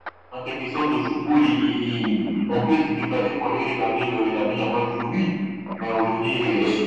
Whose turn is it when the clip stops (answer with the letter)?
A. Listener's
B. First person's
B